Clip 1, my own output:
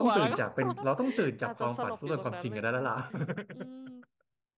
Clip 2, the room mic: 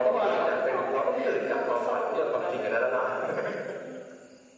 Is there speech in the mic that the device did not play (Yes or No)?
No